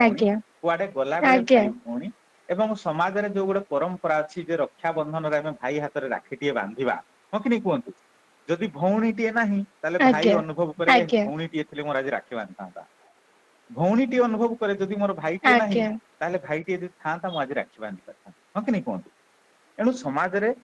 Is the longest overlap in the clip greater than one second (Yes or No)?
No